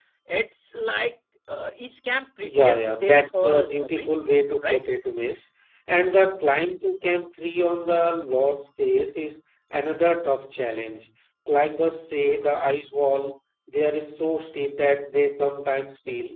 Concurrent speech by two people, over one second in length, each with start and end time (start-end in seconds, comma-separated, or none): 2.4-4.1